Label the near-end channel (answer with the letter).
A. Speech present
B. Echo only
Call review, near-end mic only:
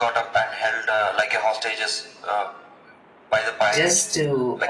A